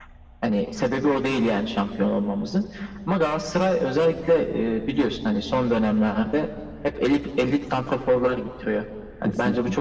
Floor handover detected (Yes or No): No